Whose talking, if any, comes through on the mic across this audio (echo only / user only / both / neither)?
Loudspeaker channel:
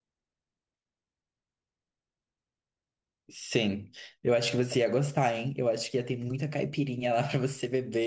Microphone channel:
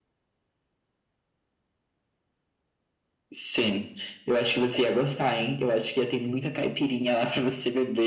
echo only